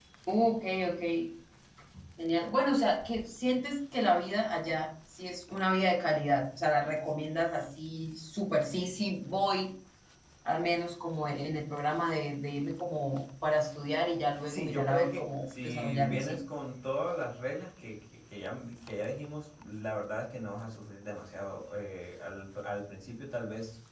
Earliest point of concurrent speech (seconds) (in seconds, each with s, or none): 14.5 s